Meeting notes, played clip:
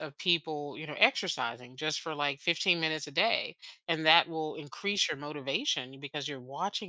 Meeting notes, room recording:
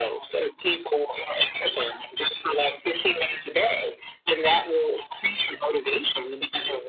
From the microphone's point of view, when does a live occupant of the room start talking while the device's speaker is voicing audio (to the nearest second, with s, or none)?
none